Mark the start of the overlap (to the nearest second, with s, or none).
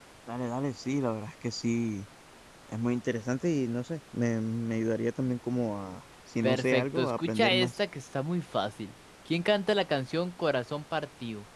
6 s